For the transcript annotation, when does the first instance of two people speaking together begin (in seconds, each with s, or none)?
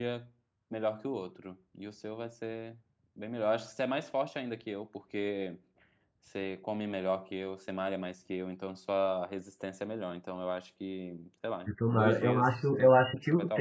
11.7 s